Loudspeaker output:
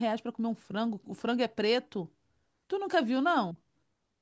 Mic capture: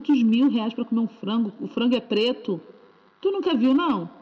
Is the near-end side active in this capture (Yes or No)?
No